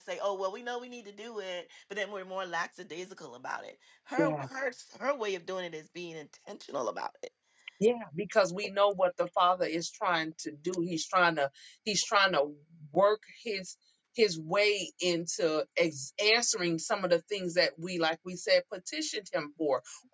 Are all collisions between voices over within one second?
Yes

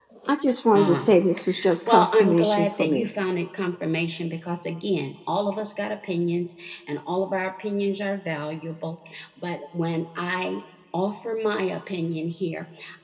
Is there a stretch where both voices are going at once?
Yes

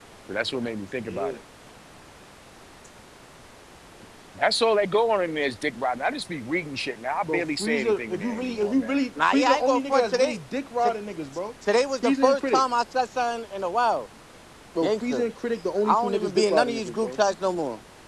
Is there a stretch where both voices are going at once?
Yes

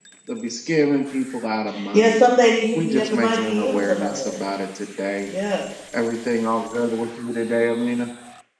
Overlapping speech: Yes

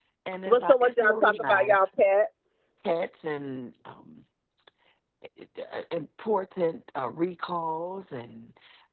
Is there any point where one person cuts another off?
Yes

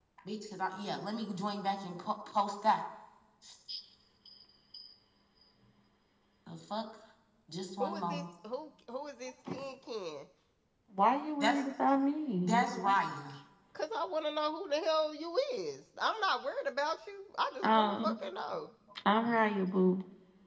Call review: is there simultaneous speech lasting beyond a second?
No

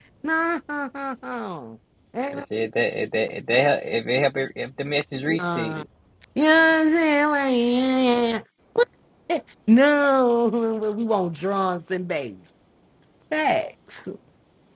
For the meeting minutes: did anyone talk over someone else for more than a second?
No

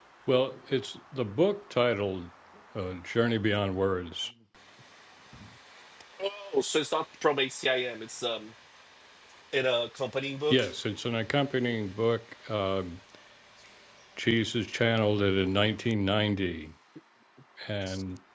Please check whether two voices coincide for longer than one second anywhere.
No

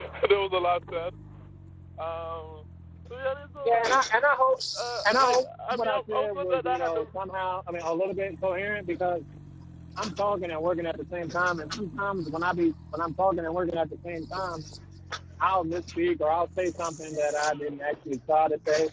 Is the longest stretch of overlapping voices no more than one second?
No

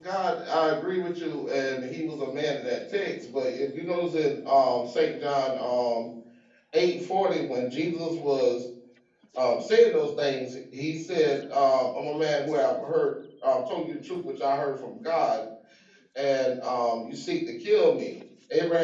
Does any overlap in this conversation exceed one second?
No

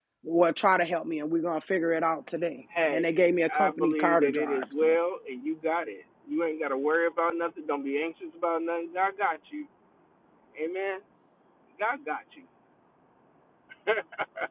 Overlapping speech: Yes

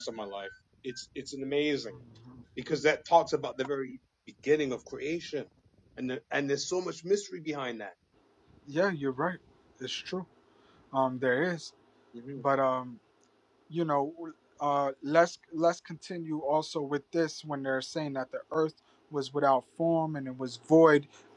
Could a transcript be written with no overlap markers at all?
Yes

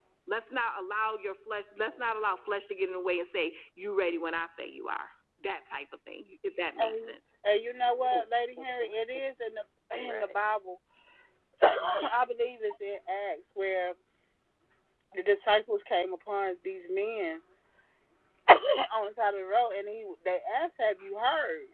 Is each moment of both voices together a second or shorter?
Yes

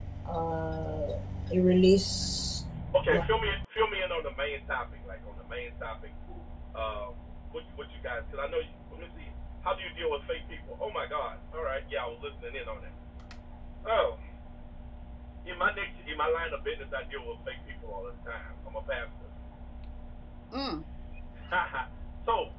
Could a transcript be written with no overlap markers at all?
Yes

